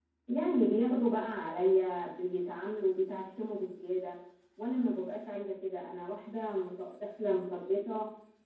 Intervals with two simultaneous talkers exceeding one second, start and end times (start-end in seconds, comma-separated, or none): none